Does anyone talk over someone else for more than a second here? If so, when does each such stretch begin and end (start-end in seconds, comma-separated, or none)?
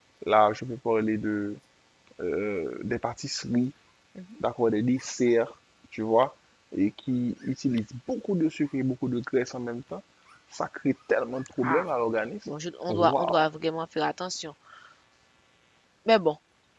none